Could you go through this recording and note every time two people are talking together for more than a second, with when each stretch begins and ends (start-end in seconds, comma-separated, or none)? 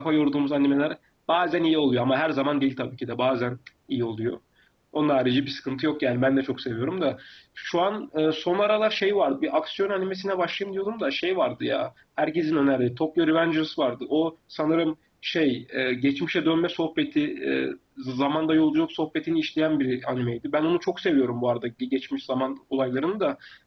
none